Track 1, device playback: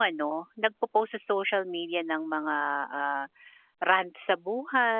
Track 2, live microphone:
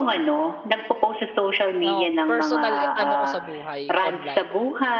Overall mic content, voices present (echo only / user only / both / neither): both